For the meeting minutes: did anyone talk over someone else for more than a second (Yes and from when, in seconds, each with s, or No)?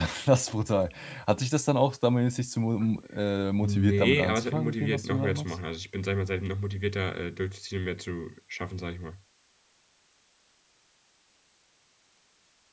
Yes, from 3.6 s